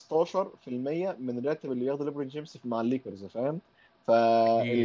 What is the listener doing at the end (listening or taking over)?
listening